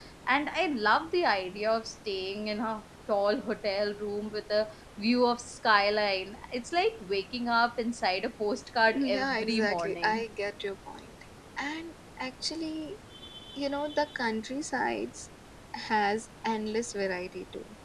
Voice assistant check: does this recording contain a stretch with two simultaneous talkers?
Yes, from 8.9 s

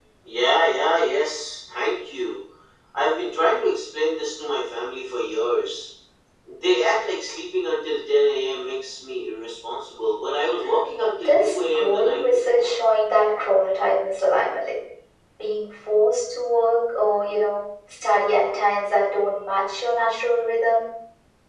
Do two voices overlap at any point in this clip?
Yes, from 11.2 s

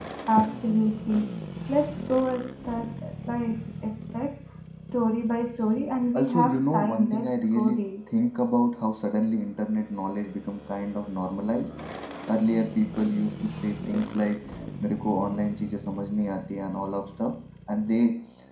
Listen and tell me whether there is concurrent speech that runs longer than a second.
Yes, from 6.1 s

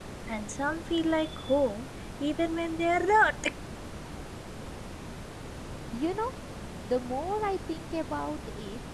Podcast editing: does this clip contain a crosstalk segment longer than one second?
No

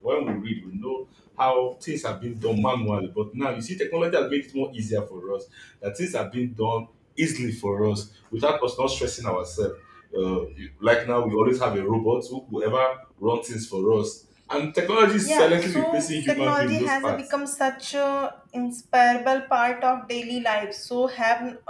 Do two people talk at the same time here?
Yes, from 15.2 s

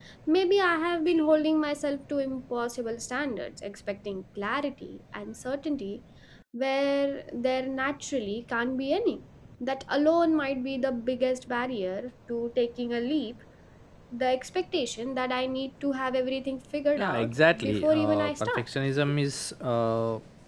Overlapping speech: Yes, from 17.0 s

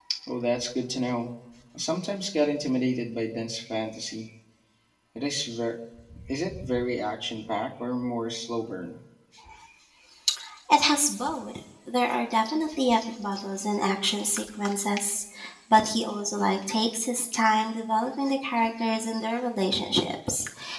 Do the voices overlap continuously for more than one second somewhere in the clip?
No

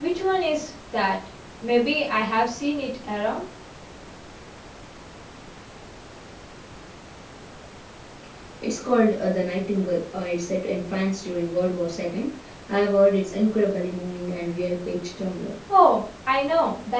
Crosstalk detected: No

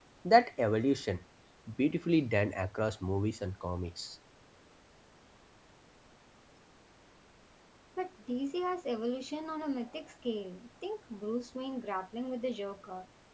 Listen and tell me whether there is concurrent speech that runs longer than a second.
No

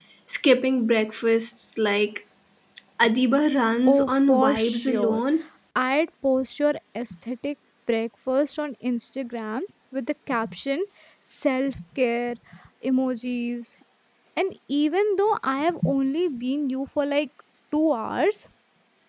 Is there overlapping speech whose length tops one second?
Yes, from 3.9 s

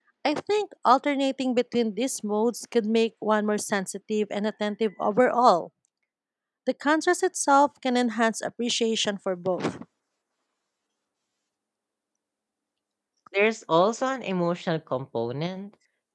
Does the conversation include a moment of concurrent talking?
No

